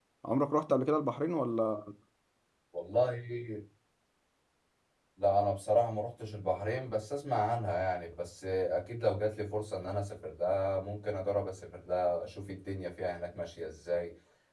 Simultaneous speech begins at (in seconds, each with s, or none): none